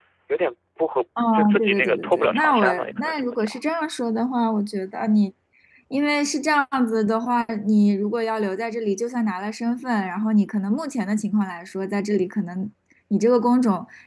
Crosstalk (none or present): present